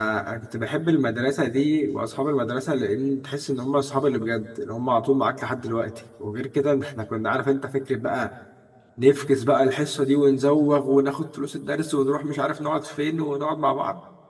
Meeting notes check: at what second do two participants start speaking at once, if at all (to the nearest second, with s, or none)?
none